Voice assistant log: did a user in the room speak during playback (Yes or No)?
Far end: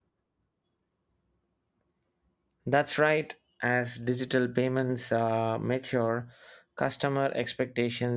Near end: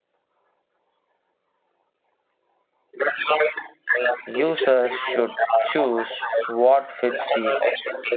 Yes